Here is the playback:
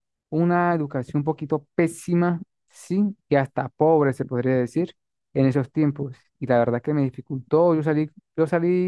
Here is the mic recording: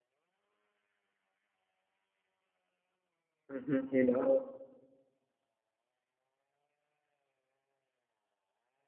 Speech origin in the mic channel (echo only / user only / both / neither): user only